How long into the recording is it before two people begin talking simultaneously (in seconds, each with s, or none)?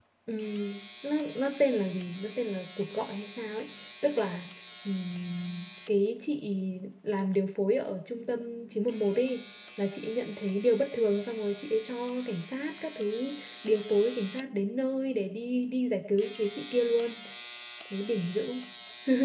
none